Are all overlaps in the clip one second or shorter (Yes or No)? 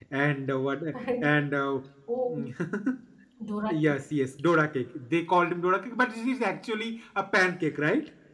Yes